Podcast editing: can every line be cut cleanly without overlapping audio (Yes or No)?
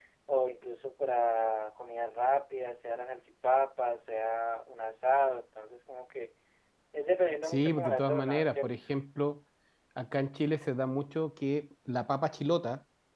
No